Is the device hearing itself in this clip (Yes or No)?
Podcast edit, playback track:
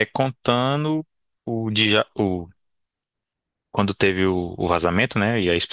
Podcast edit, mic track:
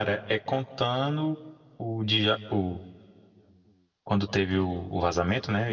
Yes